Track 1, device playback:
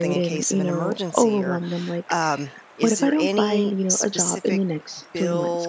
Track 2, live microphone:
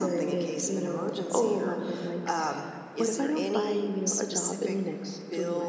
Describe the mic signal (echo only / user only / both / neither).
echo only